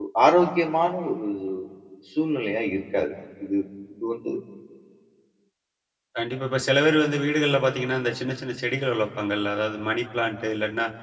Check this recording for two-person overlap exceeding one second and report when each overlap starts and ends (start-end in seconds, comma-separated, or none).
none